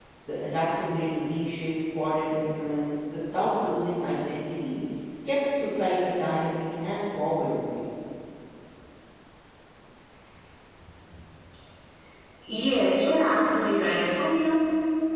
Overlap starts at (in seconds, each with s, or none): none